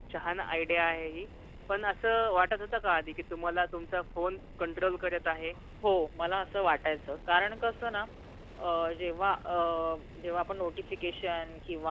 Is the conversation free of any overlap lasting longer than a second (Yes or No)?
Yes